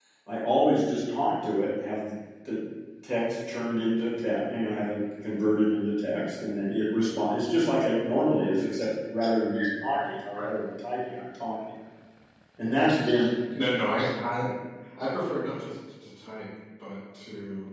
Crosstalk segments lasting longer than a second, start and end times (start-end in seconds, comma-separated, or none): none